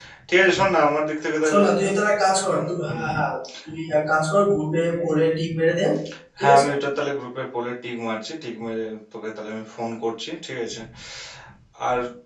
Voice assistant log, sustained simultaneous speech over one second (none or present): none